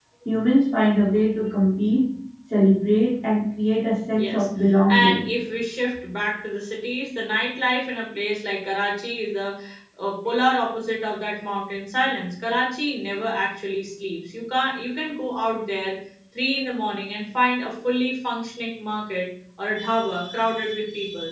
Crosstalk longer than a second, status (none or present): none